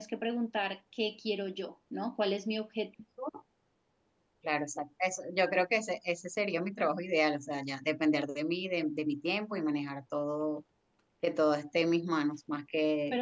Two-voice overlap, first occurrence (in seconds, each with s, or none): none